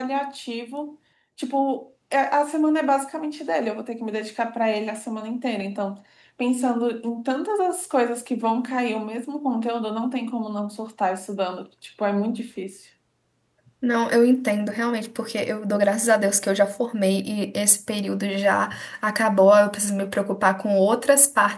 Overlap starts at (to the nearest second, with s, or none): none